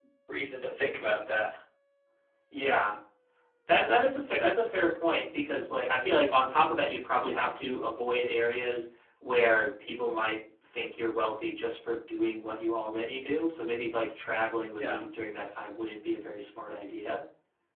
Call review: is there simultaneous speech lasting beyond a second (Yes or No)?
No